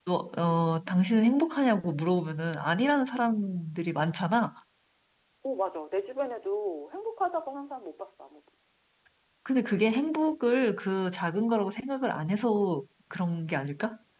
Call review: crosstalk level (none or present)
none